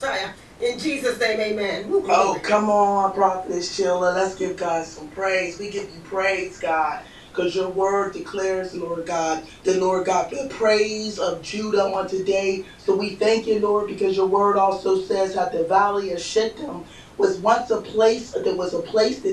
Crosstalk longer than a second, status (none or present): none